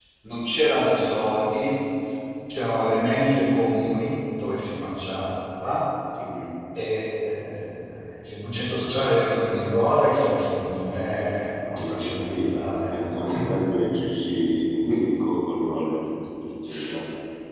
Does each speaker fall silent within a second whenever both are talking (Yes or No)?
No